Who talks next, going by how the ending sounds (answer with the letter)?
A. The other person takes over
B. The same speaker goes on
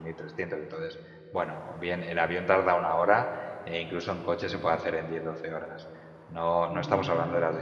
B